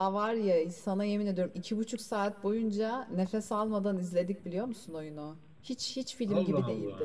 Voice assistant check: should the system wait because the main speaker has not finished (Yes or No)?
Yes